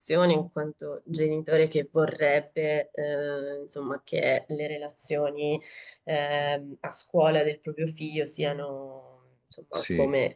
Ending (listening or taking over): listening